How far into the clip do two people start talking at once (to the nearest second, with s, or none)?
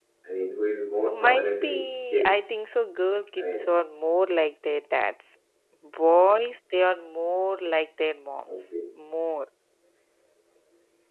1 s